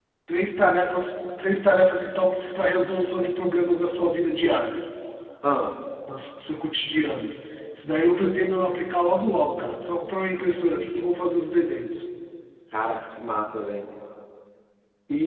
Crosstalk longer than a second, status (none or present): none